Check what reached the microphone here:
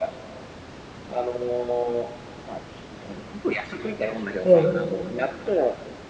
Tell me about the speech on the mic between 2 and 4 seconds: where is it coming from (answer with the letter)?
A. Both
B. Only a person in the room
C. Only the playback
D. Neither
C